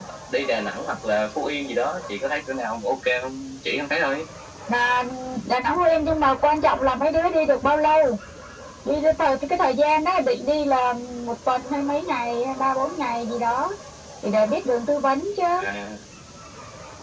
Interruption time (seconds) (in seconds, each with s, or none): none